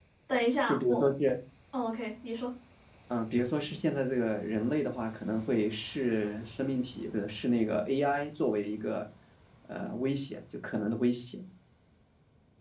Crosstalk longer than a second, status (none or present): none